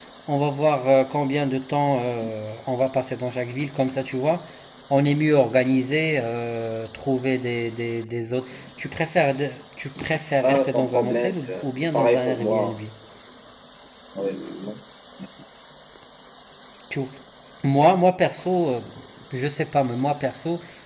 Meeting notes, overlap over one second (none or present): present